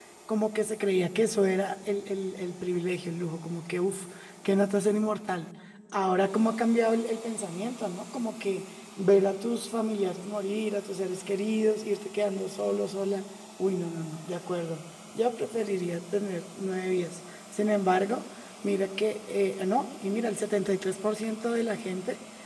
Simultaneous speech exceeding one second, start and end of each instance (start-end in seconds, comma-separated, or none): none